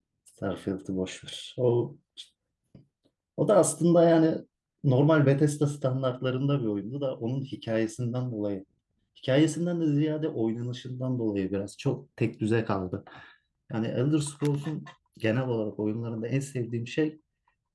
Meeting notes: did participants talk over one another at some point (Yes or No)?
No